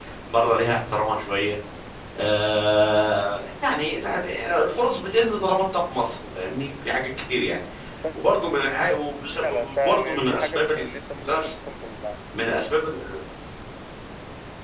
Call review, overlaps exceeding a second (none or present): present